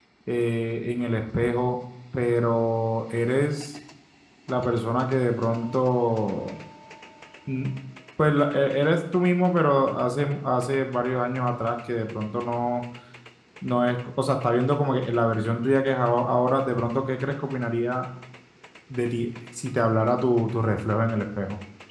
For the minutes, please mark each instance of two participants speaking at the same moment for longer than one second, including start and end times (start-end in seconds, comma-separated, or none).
none